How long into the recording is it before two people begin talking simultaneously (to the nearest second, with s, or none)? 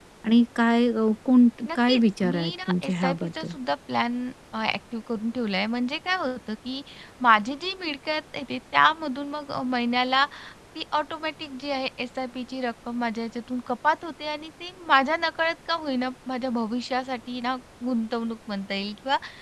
2 s